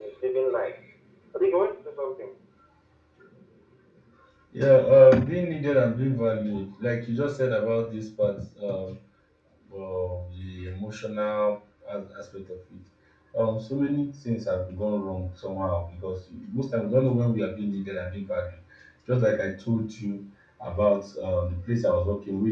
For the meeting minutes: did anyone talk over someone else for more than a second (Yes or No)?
No